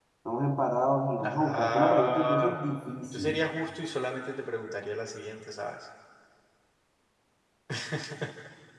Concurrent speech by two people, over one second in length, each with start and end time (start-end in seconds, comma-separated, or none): 1.2-2.6